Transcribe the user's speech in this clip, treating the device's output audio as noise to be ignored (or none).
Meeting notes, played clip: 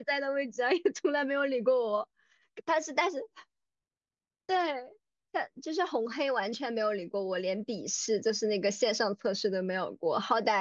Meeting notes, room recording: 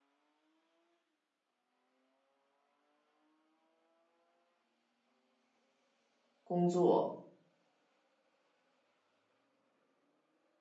工作，